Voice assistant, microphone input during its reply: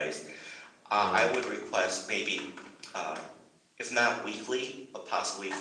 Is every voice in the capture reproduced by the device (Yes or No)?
No